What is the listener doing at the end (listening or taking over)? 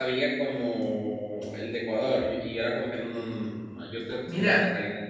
taking over